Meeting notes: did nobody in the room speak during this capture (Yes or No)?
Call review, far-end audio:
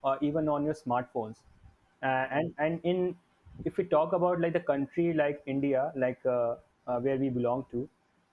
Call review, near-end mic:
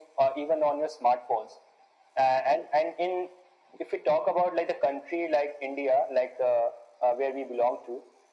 Yes